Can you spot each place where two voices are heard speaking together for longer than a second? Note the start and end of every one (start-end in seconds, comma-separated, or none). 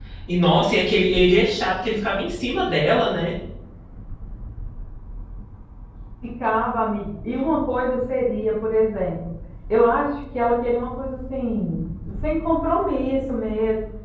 none